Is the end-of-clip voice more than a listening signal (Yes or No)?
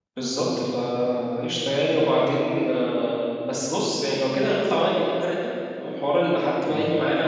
No